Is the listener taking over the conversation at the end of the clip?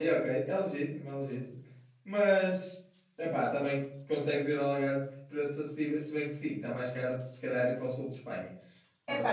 Yes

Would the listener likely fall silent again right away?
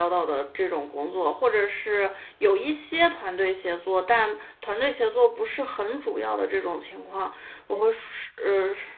Yes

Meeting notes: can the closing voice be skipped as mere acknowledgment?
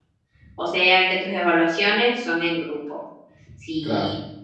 Yes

